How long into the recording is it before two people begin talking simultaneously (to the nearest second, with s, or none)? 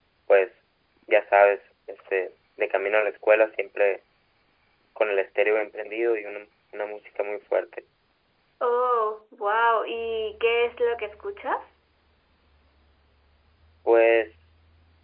none